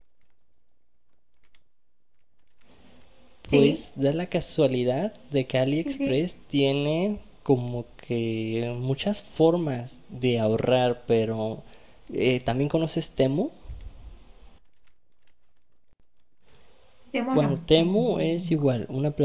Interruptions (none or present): present